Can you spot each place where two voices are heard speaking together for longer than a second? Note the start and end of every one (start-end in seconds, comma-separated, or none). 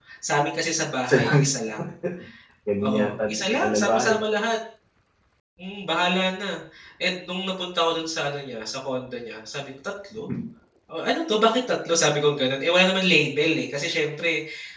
2.9-4.1